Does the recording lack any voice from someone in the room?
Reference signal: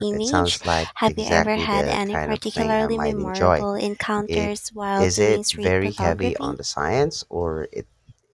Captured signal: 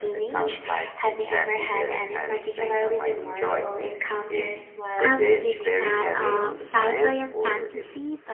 No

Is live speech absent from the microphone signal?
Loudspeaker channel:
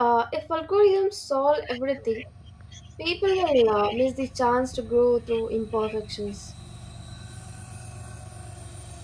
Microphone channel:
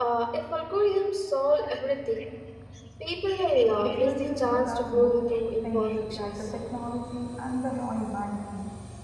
No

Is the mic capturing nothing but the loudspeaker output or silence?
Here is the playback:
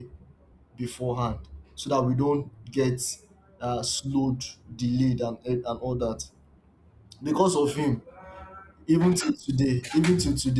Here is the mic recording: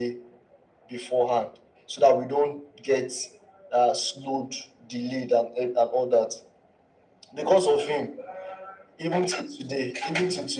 Yes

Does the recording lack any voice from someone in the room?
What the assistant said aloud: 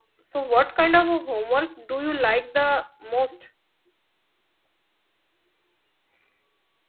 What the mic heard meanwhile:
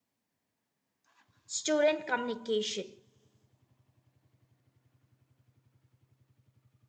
No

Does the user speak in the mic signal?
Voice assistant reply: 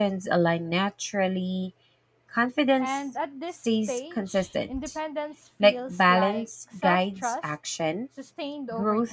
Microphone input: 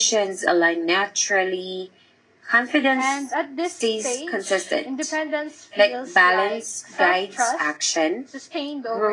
No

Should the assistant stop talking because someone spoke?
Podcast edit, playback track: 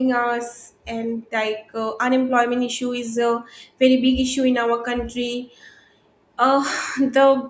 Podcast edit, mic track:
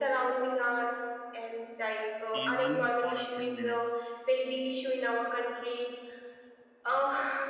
Yes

